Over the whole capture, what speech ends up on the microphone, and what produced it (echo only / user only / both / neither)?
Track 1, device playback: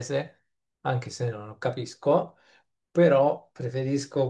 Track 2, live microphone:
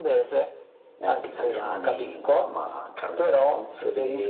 both